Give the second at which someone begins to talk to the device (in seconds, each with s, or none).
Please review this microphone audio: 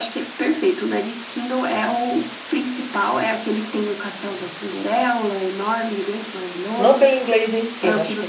6.8 s